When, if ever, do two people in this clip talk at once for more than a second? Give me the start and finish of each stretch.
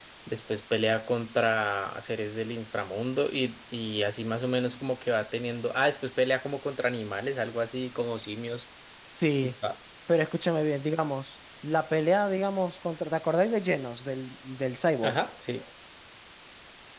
none

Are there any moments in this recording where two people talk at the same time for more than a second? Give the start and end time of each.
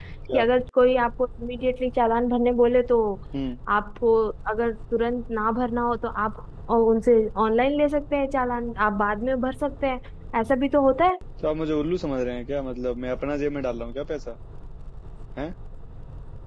none

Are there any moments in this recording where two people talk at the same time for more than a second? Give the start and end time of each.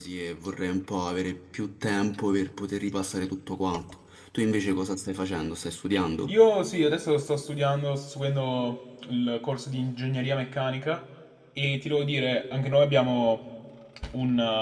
none

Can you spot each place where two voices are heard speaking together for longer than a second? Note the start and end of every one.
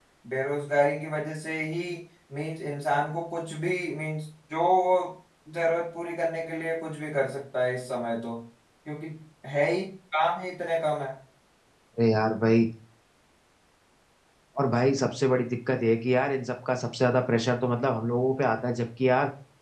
none

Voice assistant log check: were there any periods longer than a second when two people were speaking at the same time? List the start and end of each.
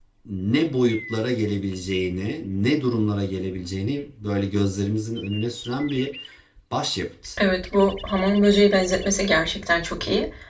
none

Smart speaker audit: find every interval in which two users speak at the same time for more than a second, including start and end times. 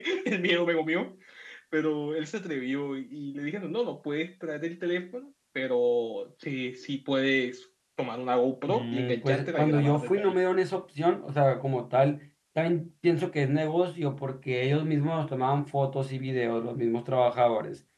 8.7-10.4

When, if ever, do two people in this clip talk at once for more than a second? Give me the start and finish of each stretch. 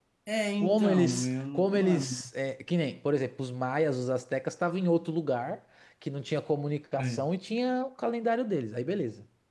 0.6-2.2

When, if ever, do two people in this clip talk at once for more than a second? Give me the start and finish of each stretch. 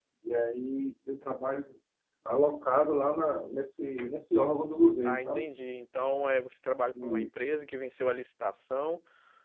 none

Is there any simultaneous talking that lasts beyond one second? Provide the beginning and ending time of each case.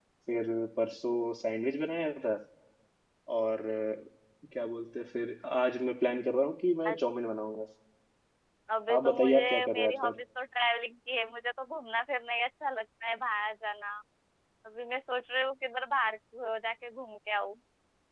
8.9-10.1

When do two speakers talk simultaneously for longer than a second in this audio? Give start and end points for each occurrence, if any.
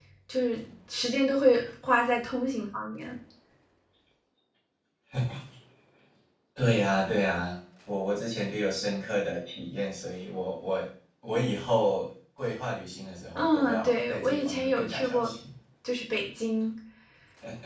13.3-15.3

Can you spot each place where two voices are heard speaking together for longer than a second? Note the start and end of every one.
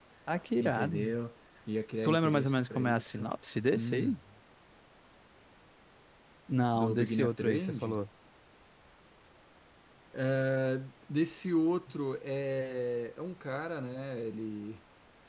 2.0-3.3, 6.8-8.0

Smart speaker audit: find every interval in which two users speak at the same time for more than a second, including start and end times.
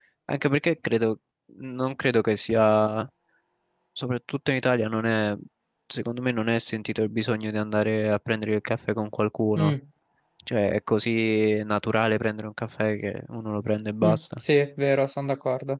none

